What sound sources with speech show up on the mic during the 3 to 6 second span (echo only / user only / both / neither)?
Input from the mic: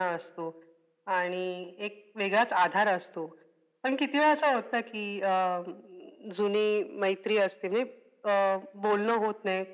echo only